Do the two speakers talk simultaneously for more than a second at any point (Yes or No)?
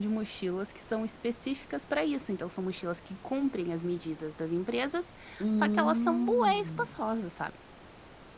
Yes